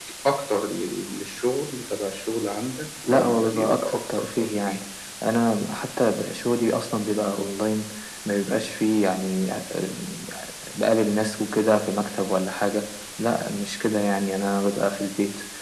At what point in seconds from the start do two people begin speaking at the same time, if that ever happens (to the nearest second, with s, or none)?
3 s